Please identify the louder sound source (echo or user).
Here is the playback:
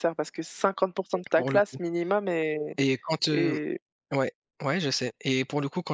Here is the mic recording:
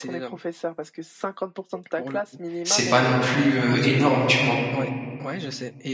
user